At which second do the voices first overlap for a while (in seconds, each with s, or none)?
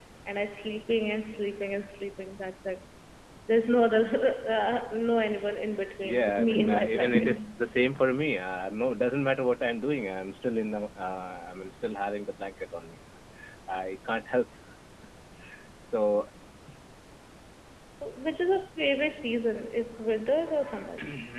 6.0 s